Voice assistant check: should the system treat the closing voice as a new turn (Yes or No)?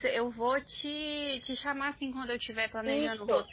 No